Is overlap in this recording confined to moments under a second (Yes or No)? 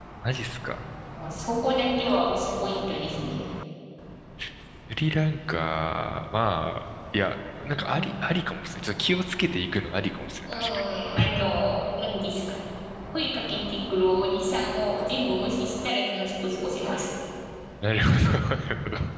Yes